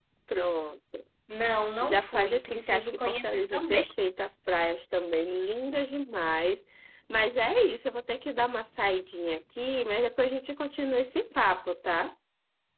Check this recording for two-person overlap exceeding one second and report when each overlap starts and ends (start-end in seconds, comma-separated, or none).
1.8-3.8